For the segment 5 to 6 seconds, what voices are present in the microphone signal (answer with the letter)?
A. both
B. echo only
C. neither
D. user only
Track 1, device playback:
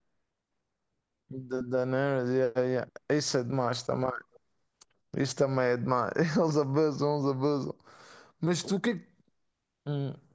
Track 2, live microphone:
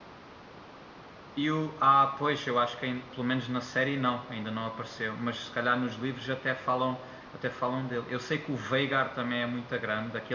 D